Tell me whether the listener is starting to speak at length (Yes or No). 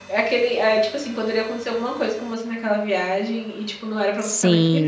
Yes